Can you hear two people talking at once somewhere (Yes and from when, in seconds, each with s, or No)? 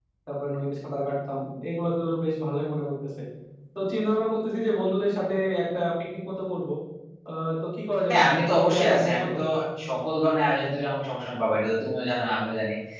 Yes, from 8.1 s